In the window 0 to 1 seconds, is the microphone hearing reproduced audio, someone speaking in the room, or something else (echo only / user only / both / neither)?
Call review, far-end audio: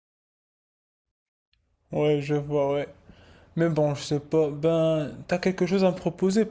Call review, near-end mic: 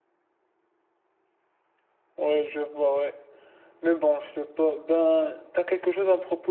neither